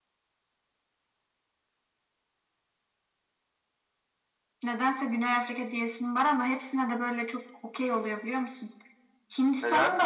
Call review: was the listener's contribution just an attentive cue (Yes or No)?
No